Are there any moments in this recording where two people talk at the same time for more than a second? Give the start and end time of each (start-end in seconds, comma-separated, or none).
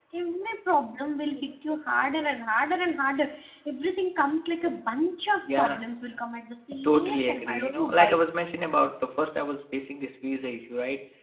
6.8-8.1